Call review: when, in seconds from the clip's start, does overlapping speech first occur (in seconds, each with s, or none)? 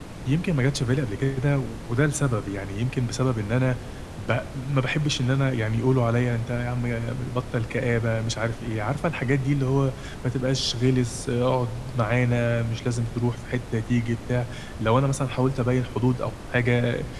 none